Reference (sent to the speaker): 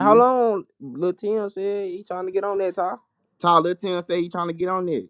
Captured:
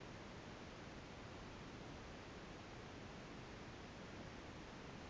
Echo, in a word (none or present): none